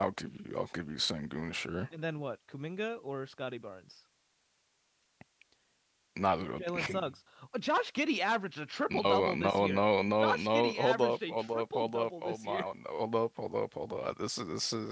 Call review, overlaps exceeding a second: present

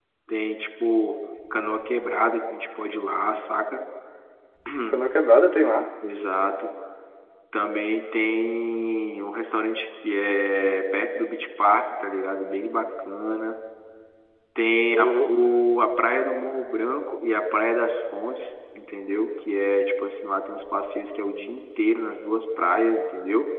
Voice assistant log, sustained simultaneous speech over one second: none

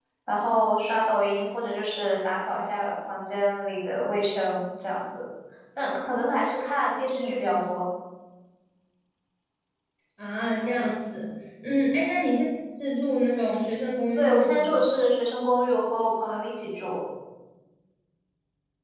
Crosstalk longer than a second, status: none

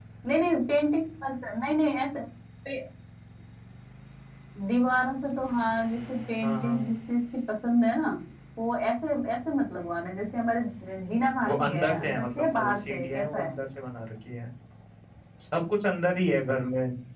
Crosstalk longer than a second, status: present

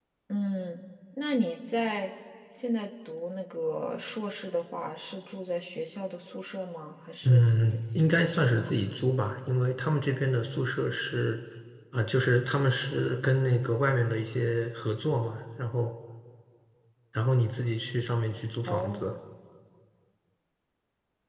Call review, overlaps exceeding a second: present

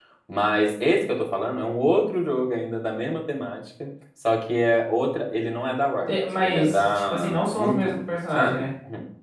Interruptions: present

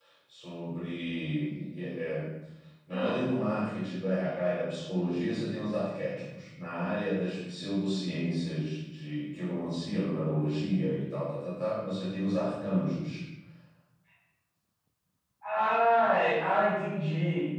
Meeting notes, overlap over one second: none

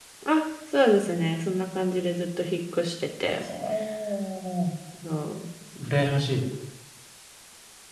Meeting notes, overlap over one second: none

